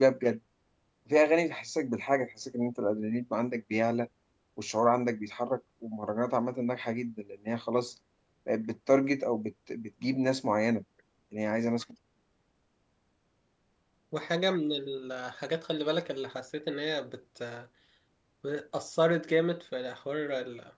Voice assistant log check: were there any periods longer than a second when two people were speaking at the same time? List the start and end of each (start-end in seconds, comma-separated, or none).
none